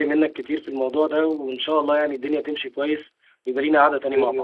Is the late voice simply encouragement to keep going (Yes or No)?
No